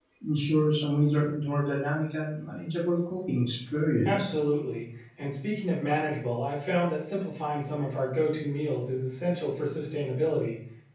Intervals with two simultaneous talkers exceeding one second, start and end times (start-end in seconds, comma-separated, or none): none